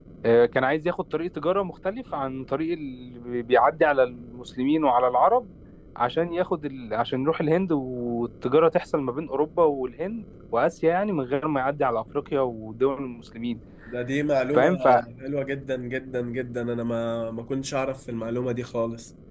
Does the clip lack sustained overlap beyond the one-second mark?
Yes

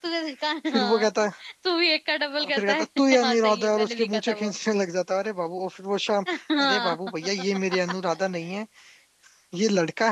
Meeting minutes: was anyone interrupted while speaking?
Yes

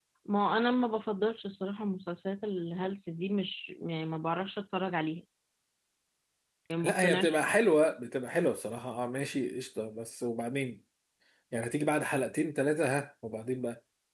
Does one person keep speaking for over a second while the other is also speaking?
No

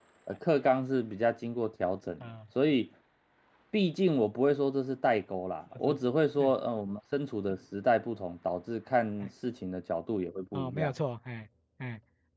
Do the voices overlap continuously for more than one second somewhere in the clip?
No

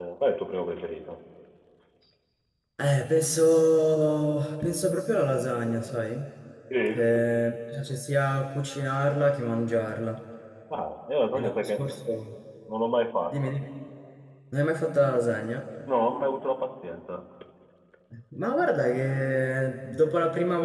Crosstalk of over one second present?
No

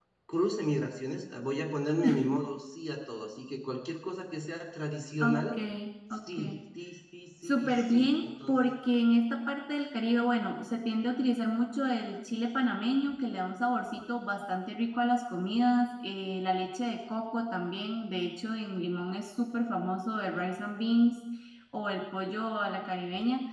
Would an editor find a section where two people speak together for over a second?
Yes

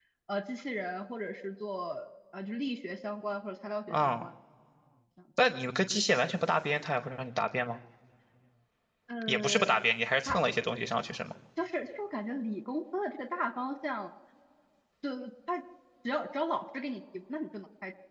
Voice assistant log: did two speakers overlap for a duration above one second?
No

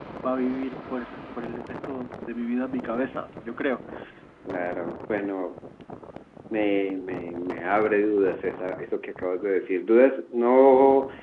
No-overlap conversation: Yes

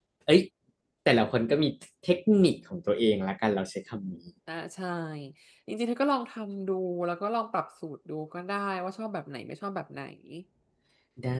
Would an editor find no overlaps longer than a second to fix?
Yes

